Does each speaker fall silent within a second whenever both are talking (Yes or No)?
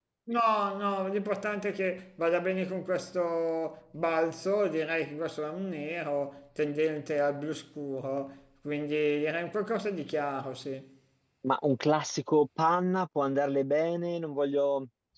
Yes